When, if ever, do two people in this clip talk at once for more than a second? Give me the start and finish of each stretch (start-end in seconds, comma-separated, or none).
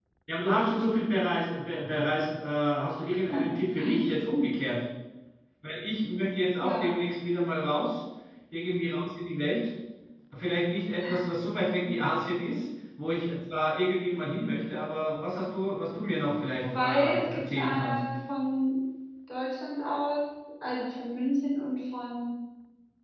16.6-18.0